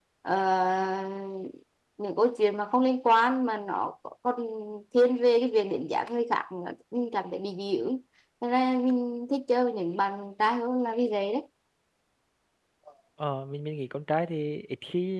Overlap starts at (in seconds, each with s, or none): none